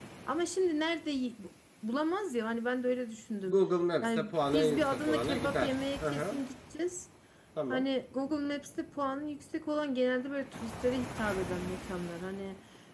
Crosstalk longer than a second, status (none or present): present